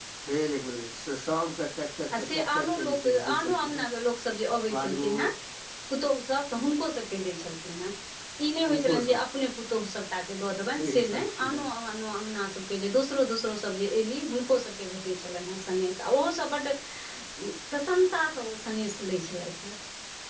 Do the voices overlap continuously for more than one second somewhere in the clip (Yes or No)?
Yes